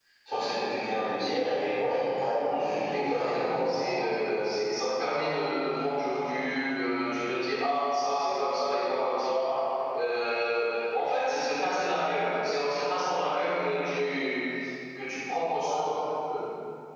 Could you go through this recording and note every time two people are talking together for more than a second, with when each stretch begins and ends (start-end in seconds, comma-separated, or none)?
2.5-4.0